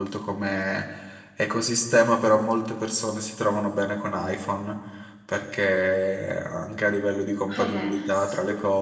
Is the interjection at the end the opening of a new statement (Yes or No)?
No